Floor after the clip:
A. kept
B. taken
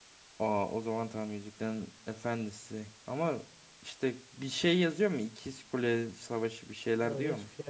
B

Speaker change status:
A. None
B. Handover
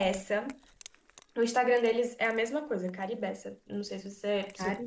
A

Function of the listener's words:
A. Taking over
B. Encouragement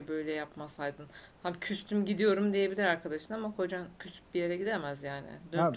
A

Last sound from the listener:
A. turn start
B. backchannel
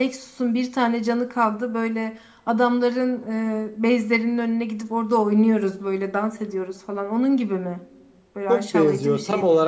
A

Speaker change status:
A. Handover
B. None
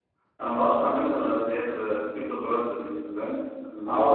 A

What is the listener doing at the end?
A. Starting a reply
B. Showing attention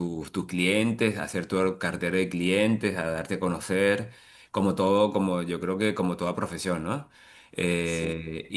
B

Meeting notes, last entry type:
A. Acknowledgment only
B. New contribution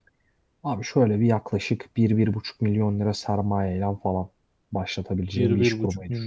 B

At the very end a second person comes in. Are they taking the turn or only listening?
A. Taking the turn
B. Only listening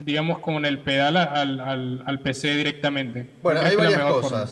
A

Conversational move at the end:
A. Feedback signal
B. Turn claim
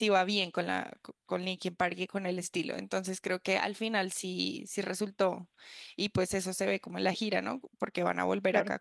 A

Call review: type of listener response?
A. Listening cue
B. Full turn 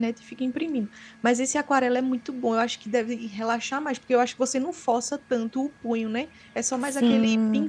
B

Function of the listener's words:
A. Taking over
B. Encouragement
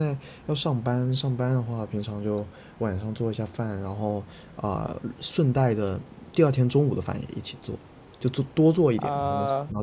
A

